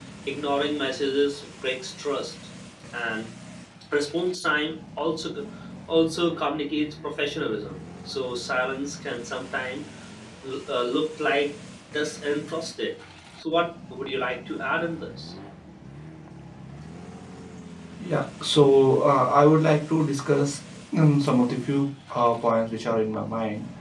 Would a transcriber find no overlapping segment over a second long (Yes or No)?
Yes